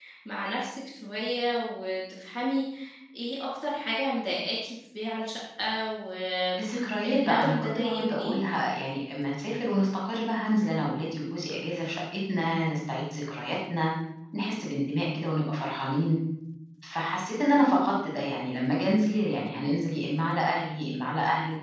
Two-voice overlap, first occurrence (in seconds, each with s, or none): 6.6 s